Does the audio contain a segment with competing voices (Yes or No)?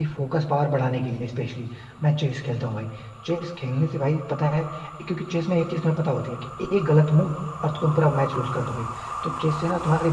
No